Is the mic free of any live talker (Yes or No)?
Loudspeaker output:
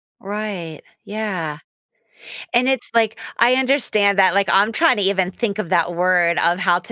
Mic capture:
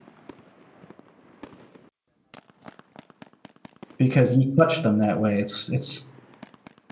No